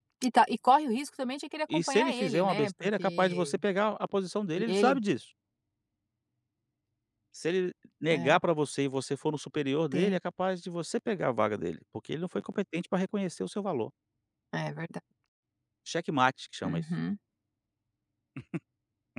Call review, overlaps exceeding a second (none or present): present